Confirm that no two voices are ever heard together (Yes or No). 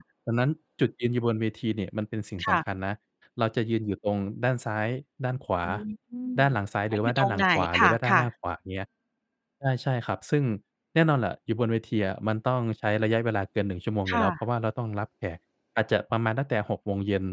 No